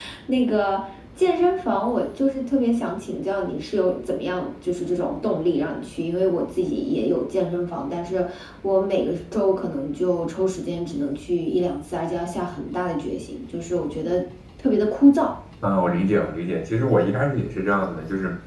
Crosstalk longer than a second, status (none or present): none